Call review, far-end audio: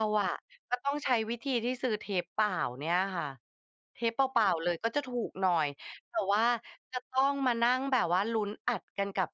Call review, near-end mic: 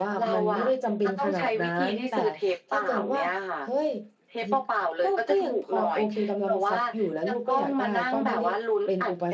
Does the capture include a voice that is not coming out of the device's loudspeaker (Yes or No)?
Yes